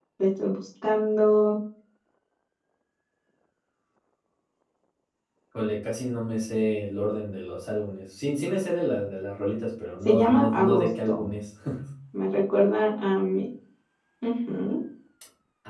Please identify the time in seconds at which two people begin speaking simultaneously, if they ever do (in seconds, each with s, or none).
10.1 s